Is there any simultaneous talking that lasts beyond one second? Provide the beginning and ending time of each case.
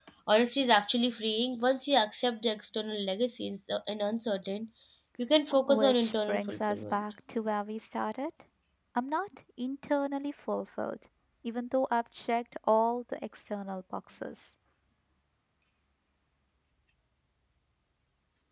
5.6-7.0

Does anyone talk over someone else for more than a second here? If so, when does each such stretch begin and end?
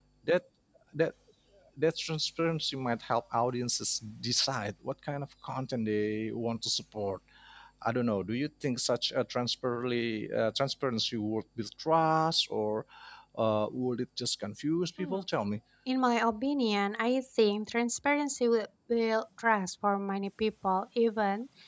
none

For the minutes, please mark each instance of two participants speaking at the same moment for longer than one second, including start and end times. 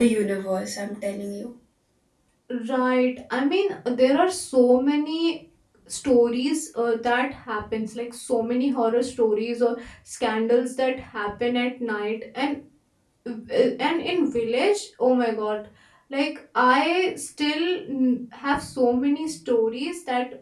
none

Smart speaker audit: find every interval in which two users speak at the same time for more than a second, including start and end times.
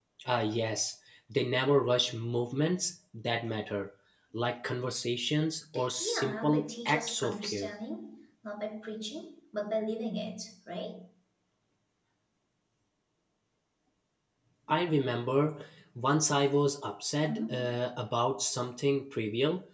6.0-7.7

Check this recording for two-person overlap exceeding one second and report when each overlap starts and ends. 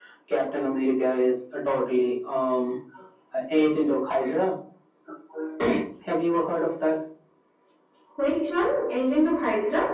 none

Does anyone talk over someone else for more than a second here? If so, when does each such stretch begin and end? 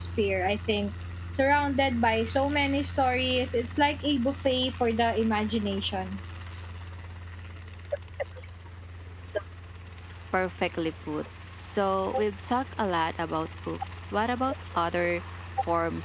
none

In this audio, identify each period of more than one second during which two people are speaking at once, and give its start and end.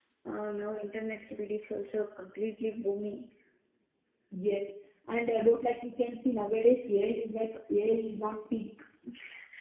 none

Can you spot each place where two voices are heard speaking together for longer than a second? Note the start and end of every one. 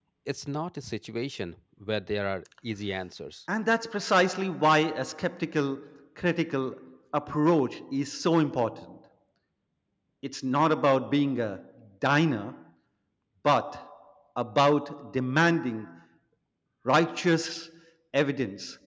none

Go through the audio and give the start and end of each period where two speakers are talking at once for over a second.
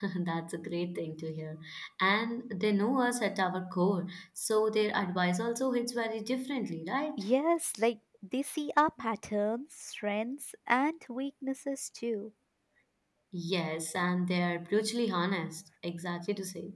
none

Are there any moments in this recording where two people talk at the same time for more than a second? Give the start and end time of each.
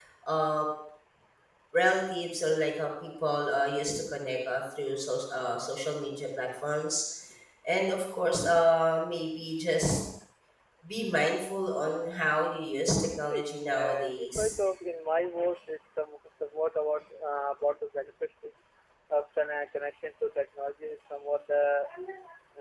13.2-14.6

